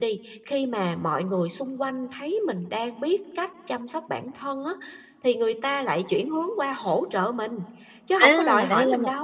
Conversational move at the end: taking over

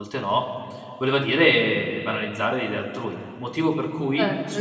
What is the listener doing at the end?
taking over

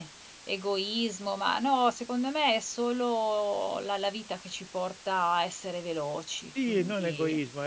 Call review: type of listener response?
taking over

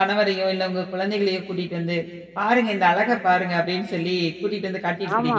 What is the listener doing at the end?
taking over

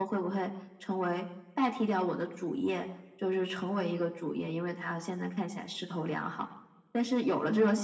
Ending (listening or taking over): listening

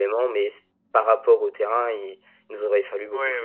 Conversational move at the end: taking over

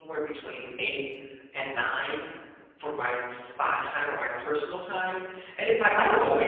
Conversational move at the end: listening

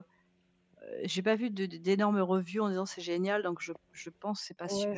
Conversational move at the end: taking over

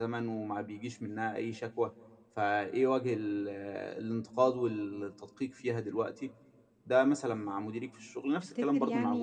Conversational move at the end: taking over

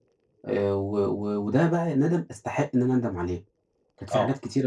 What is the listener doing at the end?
listening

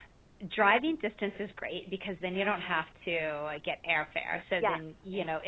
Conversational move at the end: listening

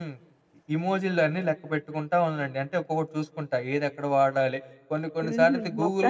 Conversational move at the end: taking over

